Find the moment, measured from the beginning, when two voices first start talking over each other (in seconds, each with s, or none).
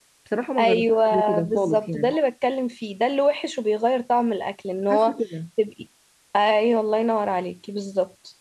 0.6 s